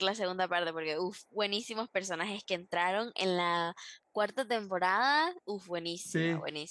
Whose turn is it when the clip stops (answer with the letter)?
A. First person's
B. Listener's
A